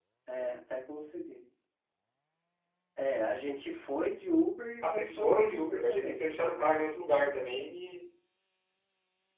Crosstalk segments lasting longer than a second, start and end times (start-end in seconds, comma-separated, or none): 4.8-6.2